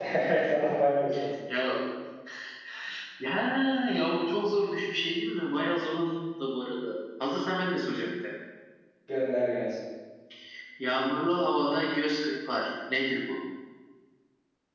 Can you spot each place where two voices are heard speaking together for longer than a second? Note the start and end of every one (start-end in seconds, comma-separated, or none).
none